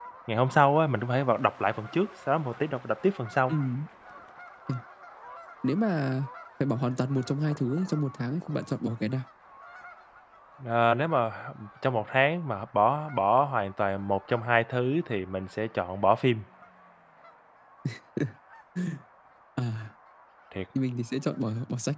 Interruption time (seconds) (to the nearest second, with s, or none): none